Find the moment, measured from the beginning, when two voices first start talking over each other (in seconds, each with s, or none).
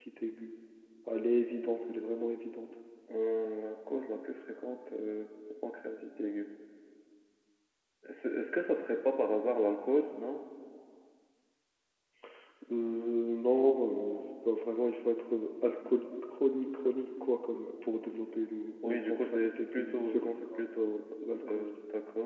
18.8 s